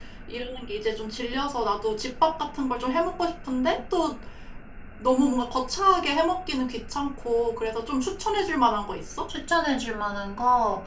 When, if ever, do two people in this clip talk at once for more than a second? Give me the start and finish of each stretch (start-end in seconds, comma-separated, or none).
none